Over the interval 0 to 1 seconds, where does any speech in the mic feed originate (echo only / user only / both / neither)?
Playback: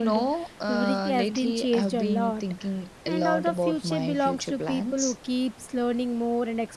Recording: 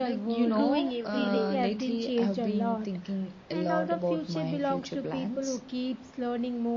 both